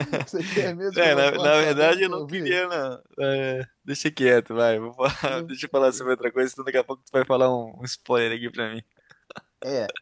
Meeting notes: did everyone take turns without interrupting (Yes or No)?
No